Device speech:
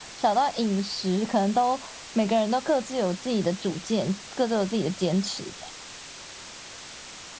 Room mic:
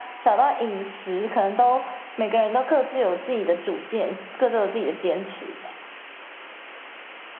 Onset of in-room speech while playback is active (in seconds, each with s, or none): none